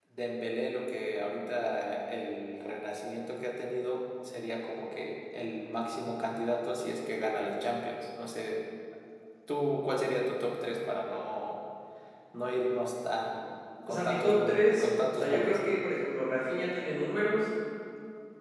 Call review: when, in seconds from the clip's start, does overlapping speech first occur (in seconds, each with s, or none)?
13.9 s